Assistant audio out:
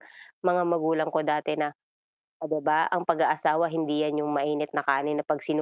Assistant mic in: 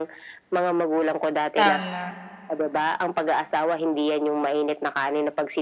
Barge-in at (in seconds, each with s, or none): 1.6 s